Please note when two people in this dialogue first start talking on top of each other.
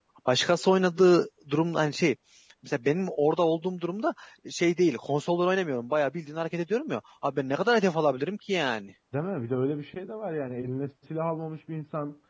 none

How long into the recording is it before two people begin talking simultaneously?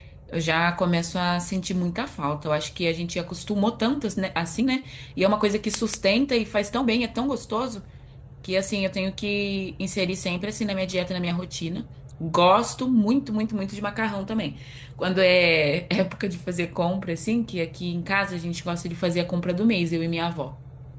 none

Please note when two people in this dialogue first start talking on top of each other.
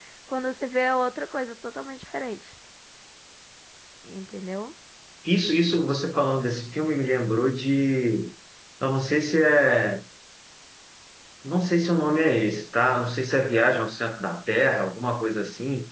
none

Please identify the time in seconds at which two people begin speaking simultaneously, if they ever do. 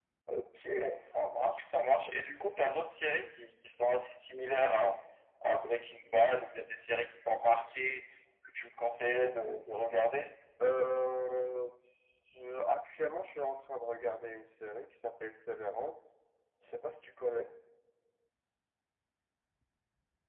none

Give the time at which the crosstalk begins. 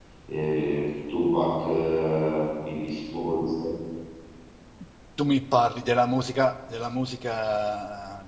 none

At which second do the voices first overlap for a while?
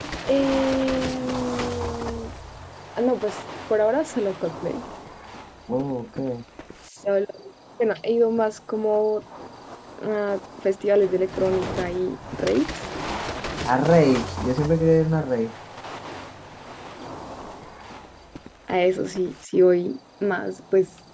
none

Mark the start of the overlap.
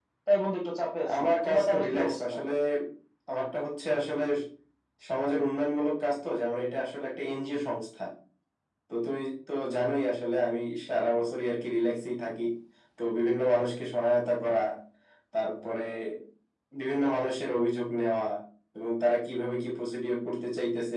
1.1 s

